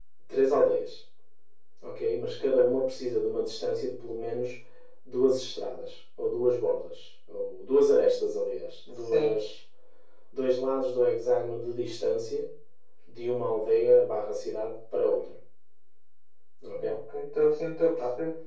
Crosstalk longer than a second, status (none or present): none